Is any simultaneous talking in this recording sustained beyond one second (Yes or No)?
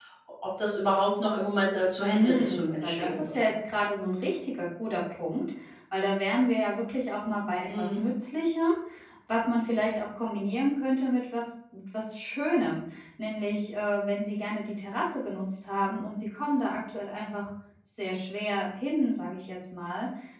Yes